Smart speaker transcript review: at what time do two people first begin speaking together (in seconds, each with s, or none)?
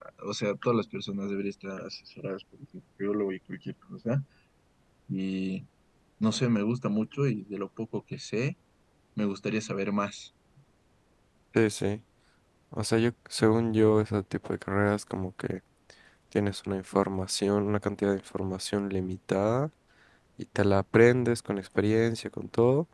none